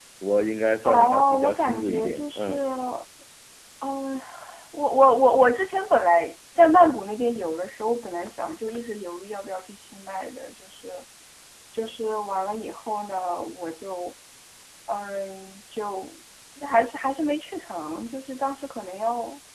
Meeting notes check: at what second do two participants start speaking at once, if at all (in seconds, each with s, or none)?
0.8 s